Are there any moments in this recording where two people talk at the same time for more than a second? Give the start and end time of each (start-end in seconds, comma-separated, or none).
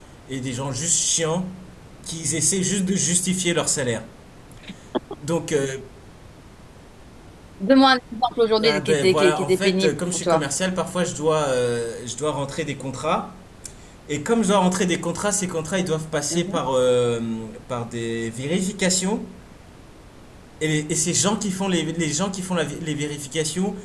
8.6-10.4